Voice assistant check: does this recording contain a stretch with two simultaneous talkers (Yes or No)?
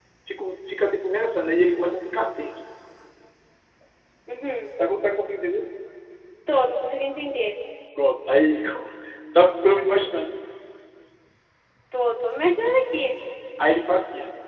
No